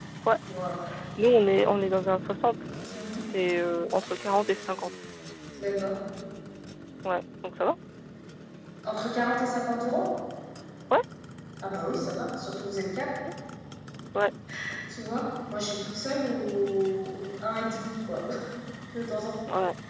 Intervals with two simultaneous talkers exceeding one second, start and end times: none

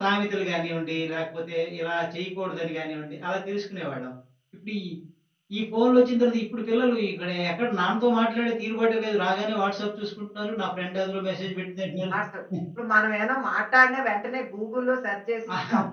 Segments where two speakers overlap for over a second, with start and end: none

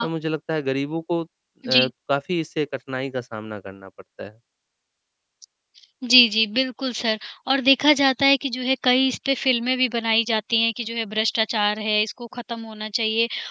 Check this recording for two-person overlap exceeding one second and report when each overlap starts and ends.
none

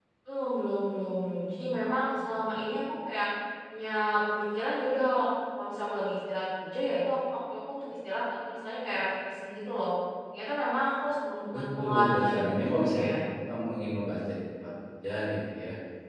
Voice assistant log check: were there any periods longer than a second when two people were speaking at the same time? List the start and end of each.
11.6-13.1

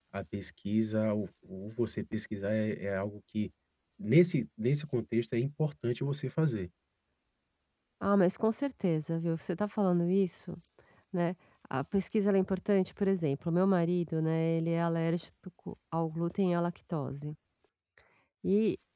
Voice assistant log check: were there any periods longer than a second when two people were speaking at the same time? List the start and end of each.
none

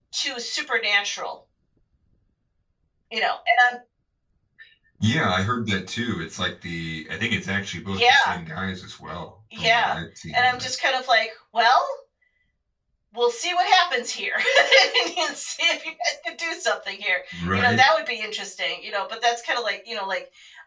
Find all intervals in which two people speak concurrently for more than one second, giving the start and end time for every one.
none

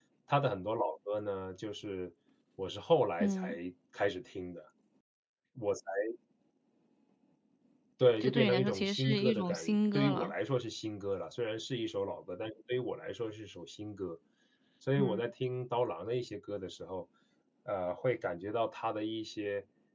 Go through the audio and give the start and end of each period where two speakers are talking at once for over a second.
8.2-10.3

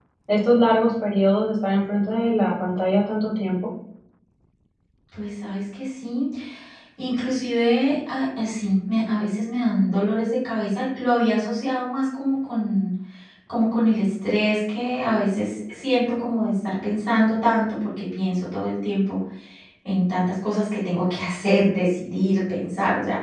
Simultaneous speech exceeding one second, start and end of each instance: none

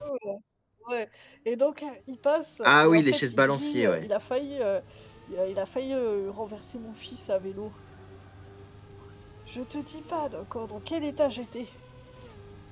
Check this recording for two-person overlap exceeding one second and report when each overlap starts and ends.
2.6-4.0

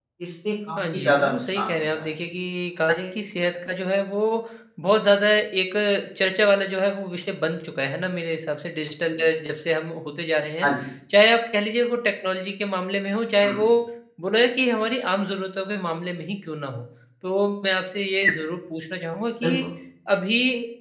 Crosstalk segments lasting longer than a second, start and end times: 0.8-2.1

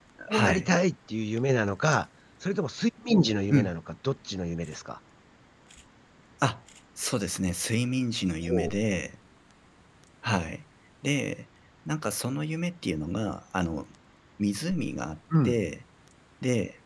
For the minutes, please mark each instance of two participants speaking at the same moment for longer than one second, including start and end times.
none

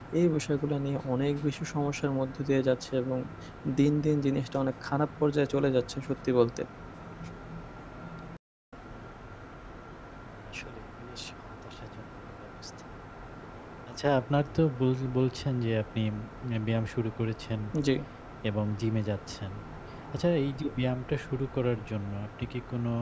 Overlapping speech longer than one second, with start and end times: none

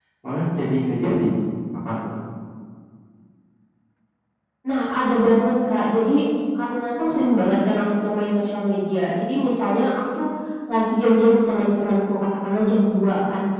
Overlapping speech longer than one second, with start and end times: none

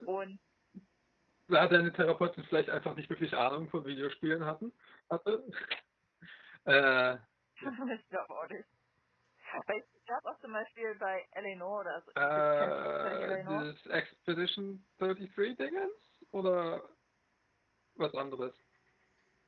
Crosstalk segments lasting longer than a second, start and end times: 12.2-13.7

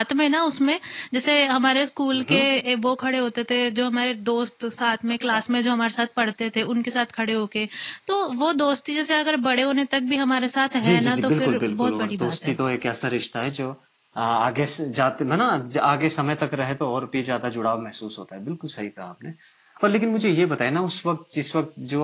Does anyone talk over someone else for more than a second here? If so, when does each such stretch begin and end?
10.8-12.5

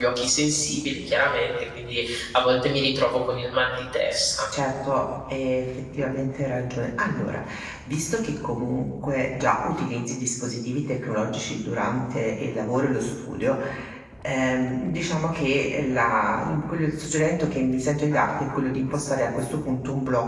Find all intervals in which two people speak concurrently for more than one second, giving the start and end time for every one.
none

